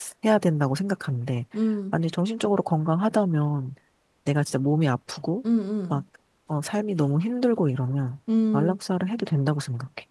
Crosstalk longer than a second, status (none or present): none